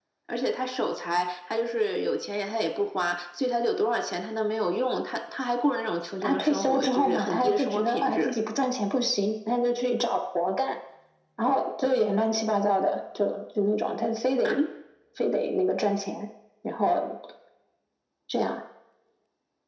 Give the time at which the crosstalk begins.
6.2 s

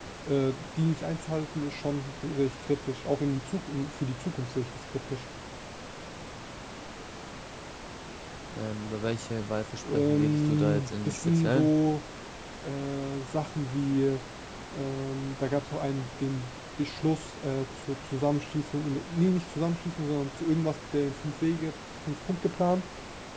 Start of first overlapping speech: 9.8 s

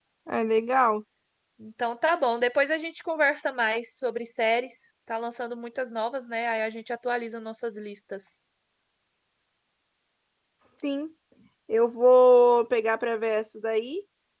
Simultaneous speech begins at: none

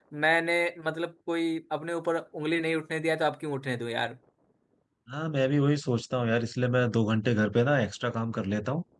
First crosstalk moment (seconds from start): none

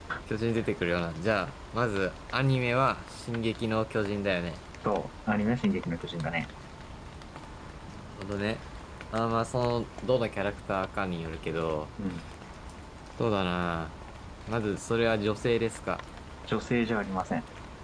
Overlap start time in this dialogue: none

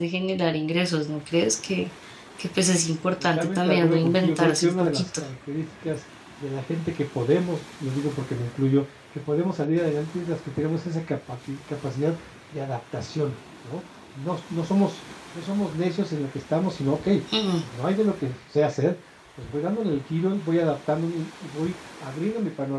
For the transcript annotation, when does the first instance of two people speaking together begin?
3.4 s

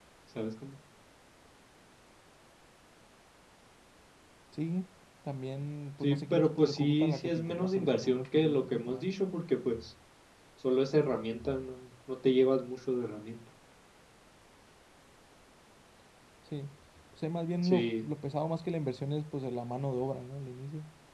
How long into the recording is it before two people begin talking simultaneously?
6.0 s

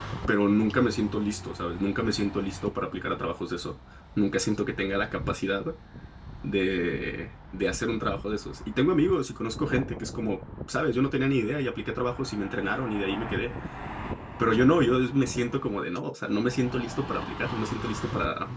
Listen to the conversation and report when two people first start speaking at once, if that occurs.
none

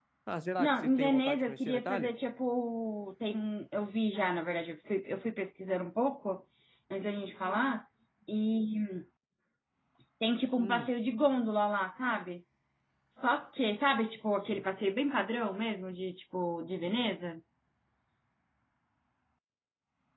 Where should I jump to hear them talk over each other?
0.6 s

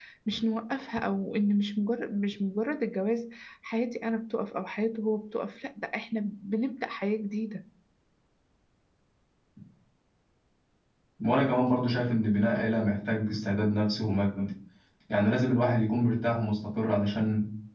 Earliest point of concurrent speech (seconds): none

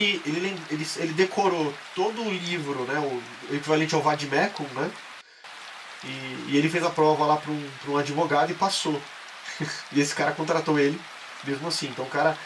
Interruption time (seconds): none

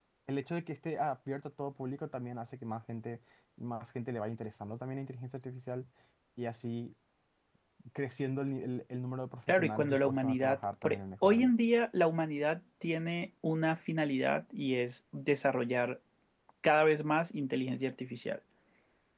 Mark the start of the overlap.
9.5 s

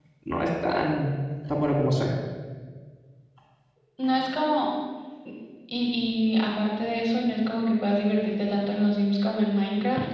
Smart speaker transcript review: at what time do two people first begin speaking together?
none

